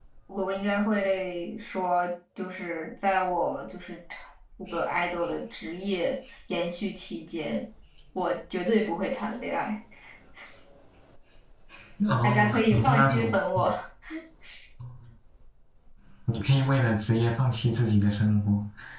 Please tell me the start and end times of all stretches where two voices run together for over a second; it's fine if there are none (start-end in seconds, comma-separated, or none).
12.2-13.7